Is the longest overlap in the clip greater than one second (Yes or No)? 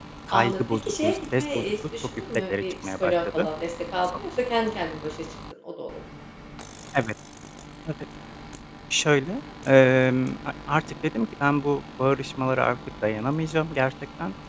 Yes